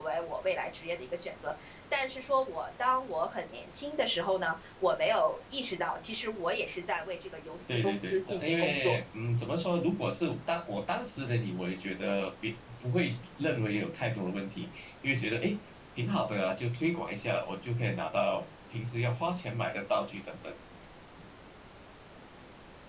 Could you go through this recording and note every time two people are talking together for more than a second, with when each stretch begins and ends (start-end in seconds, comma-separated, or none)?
7.7-9.0